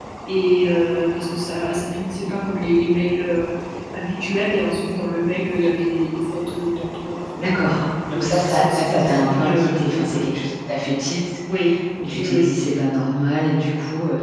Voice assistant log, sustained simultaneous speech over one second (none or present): present